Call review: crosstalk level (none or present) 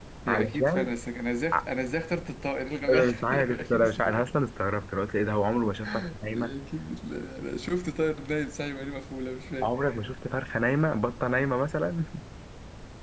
present